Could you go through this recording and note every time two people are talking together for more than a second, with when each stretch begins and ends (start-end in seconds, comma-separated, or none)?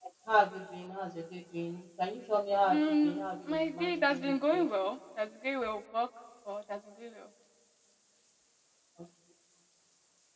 2.7-4.7